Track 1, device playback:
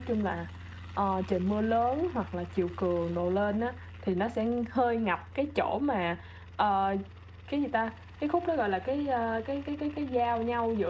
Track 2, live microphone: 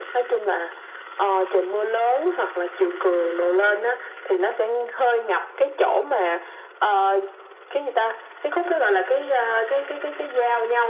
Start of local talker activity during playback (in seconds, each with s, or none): none